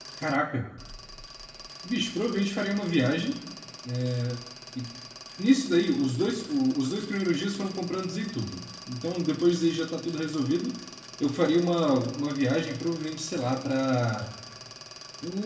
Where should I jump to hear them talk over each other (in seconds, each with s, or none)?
none